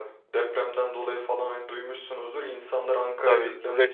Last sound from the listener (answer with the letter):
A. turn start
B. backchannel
A